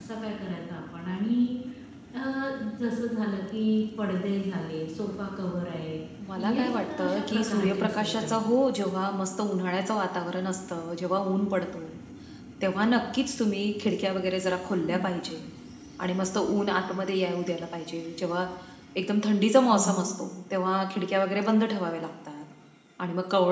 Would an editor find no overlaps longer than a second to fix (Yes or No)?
No